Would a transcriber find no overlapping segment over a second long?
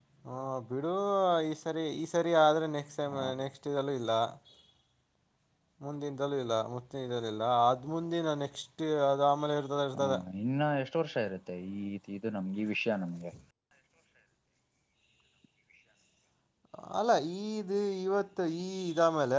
Yes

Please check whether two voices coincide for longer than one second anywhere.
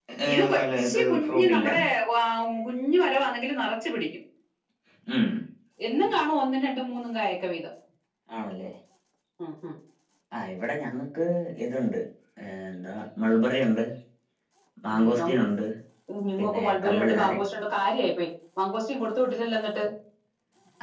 Yes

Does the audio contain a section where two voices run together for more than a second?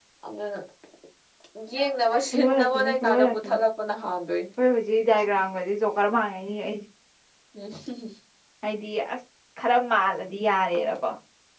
Yes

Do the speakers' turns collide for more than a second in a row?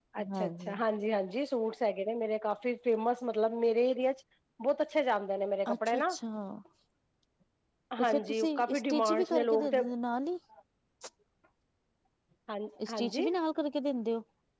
Yes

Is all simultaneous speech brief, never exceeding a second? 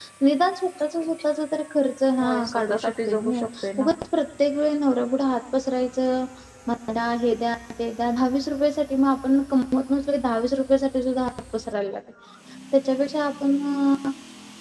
No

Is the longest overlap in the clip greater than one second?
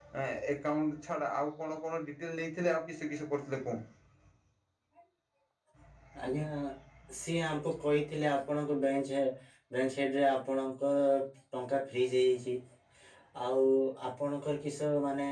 No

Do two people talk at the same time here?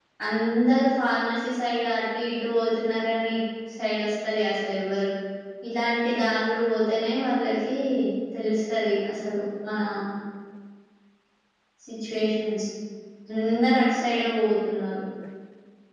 No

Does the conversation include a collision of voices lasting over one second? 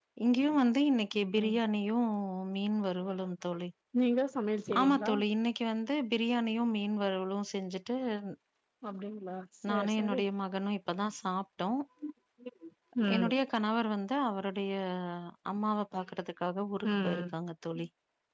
No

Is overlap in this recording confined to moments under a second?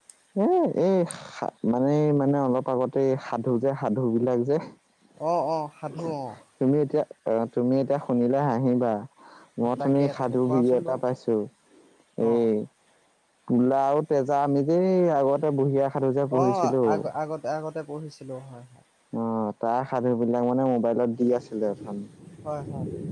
No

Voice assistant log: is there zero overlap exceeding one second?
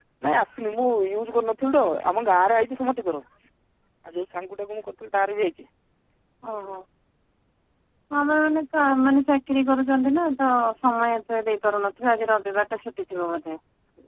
Yes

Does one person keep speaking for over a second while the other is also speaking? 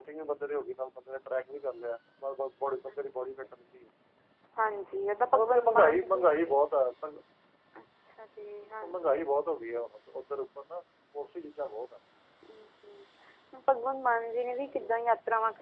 Yes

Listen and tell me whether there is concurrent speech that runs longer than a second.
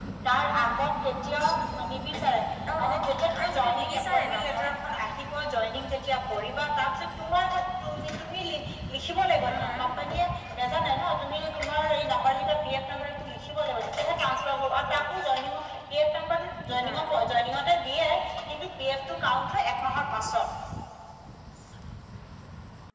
Yes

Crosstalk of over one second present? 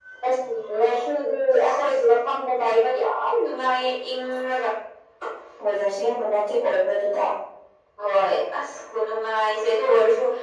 No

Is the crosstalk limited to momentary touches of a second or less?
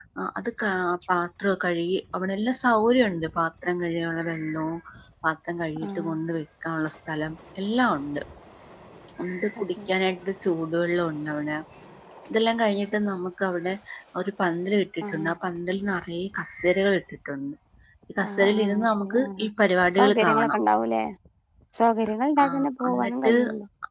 No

